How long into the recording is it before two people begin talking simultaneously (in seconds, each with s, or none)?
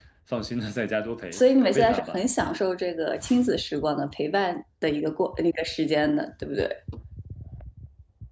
1.3 s